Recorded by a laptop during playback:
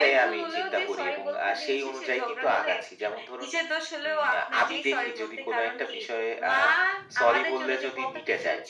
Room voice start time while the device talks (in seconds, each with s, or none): none